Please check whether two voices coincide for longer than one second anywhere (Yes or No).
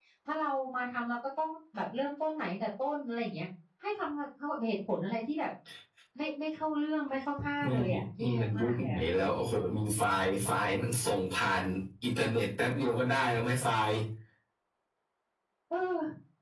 Yes